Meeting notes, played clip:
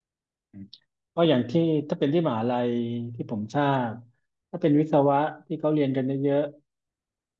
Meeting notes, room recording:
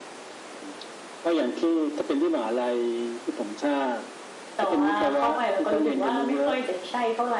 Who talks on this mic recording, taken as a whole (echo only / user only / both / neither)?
both